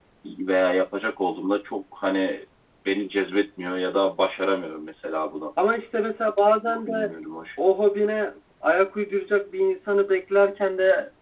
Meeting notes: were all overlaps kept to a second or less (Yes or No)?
Yes